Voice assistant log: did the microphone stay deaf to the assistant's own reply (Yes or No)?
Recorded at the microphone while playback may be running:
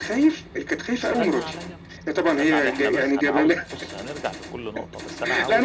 No